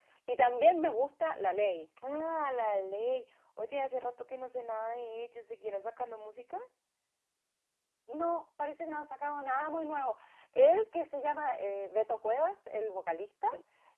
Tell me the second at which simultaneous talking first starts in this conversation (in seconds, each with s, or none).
none